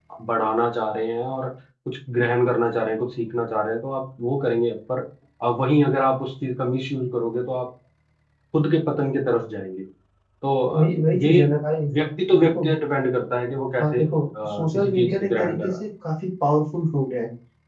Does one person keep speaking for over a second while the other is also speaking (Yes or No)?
Yes